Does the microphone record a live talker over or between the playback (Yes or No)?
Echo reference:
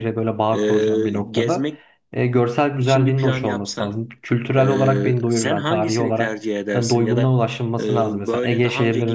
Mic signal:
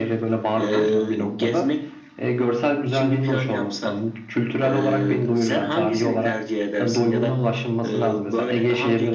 Yes